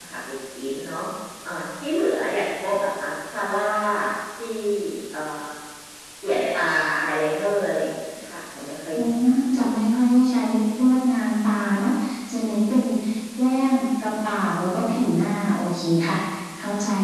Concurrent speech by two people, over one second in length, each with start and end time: none

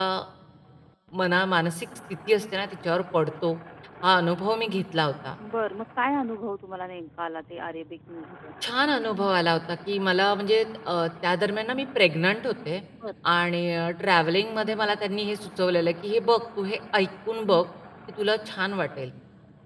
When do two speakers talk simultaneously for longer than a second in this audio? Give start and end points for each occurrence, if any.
none

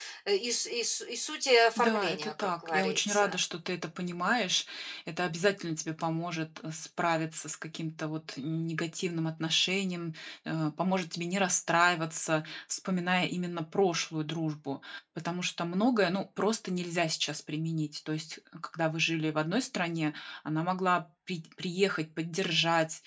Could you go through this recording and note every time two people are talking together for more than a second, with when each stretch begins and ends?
1.8-3.4

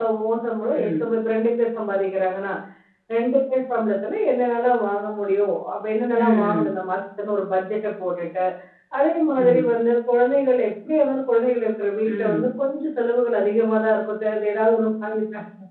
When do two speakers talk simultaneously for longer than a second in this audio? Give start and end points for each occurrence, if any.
none

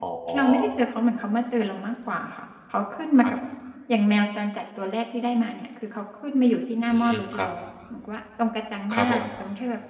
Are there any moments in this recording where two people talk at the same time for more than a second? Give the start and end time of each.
none

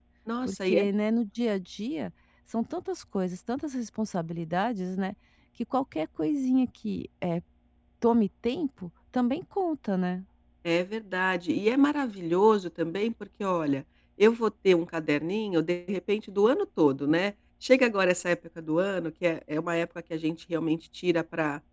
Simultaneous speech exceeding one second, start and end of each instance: none

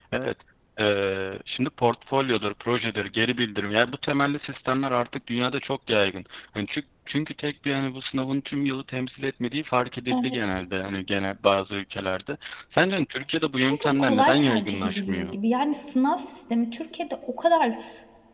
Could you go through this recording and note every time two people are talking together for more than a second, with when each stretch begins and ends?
13.6-15.3

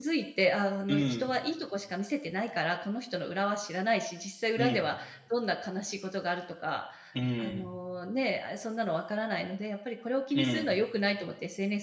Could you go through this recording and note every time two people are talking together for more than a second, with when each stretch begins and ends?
none

